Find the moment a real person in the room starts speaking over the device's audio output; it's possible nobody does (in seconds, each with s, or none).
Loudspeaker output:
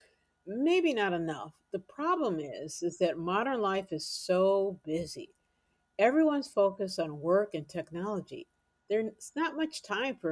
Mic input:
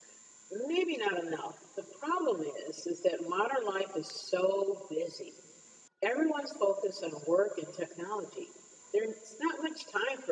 none